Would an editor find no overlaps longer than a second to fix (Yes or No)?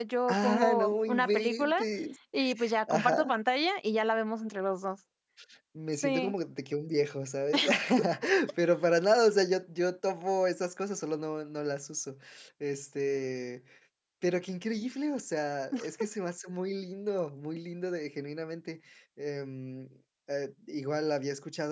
No